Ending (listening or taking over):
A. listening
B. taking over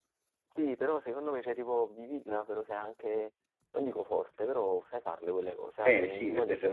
B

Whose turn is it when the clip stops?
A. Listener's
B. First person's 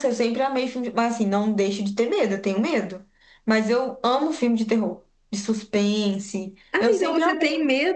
A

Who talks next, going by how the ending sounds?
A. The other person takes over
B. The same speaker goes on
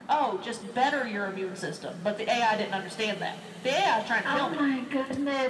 A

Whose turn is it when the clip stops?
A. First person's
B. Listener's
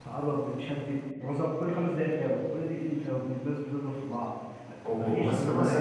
B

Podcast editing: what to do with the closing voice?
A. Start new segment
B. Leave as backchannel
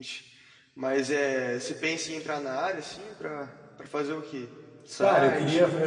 A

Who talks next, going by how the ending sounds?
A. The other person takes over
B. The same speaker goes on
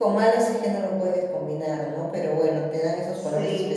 B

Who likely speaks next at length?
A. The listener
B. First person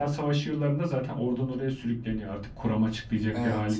A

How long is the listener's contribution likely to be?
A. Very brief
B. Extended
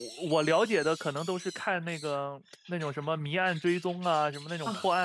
A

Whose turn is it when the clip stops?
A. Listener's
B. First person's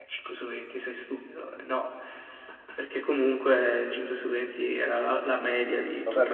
A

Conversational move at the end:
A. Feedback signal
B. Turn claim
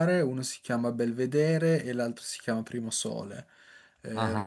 B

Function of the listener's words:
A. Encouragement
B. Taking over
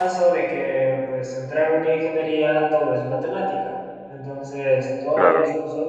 A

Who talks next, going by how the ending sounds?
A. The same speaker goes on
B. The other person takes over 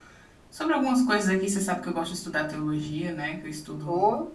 B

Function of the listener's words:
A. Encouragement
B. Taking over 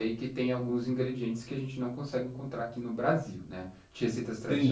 B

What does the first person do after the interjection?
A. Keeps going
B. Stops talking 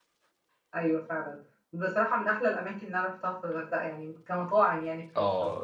B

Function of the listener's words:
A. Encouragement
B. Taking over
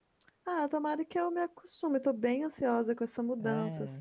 A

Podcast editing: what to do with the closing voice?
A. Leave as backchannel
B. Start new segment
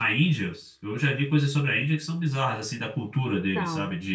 A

